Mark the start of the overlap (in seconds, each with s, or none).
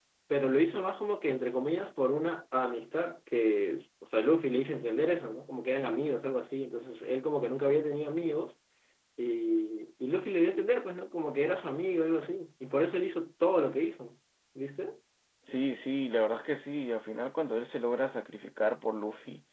none